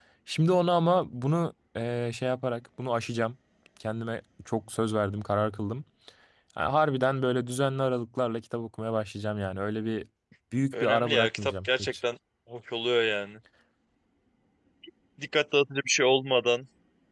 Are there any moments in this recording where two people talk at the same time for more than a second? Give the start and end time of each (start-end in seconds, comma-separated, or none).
10.7-11.9